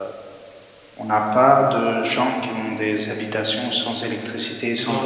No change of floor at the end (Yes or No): No